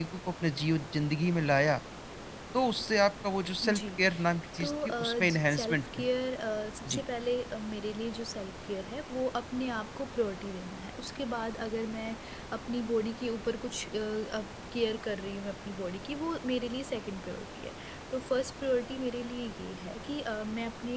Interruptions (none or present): present